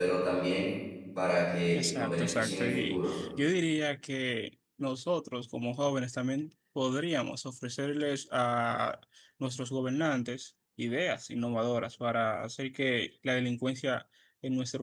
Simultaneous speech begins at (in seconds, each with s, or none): 1.7 s